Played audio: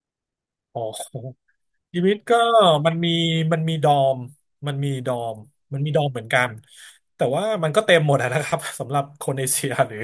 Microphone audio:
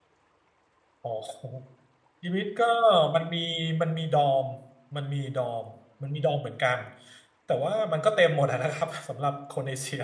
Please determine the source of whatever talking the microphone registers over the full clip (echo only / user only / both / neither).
echo only